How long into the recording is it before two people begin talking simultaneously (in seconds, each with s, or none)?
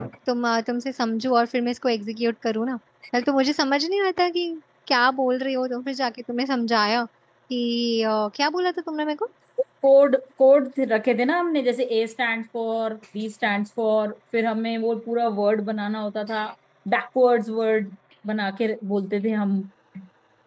none